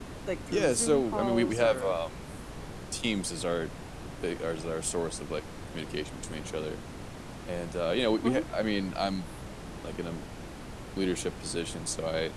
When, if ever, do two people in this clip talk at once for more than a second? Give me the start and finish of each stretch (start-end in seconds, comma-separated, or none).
0.5-1.9